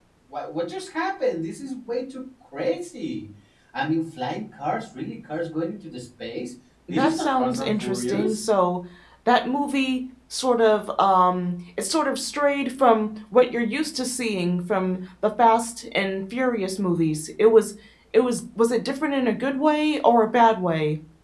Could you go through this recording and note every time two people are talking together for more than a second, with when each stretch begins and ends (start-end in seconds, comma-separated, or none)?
6.9-8.4